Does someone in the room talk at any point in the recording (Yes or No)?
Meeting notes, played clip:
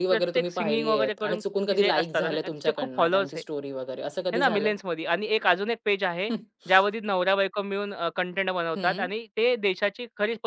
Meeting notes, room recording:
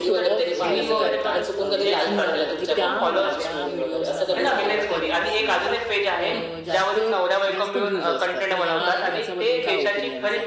Yes